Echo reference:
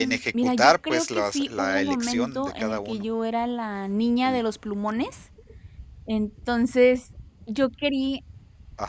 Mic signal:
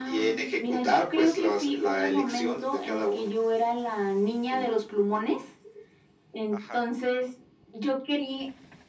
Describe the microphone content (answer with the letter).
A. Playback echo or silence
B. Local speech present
B